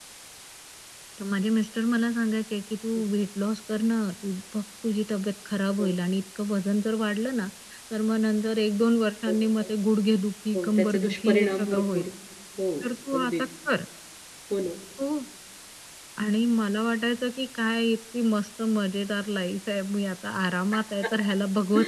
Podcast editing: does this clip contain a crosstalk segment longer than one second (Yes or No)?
Yes